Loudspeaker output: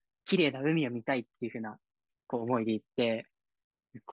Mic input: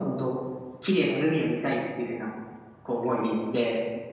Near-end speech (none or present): none